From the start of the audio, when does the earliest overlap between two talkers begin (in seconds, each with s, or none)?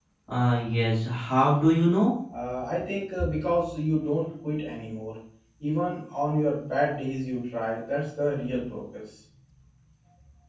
none